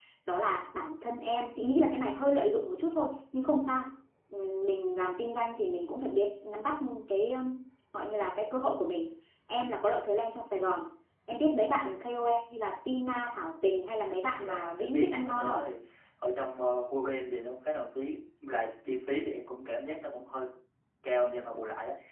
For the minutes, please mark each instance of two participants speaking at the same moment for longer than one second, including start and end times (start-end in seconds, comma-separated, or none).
14.3-15.6